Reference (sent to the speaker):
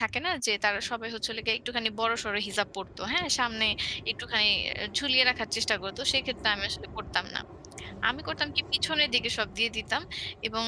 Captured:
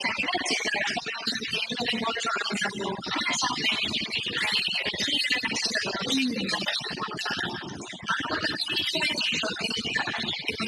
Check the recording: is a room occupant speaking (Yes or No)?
Yes